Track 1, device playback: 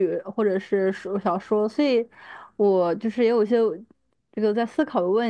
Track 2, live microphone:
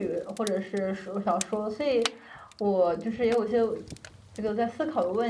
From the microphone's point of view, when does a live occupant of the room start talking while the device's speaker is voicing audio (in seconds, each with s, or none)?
none